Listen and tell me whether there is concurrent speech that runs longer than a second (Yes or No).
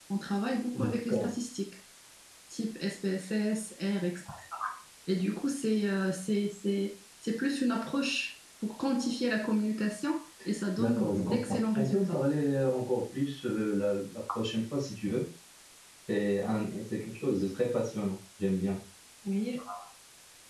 Yes